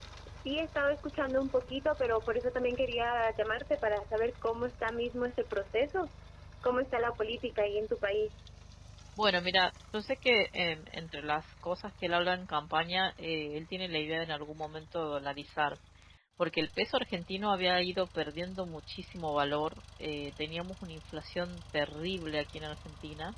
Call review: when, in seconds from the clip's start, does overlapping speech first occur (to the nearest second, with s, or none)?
none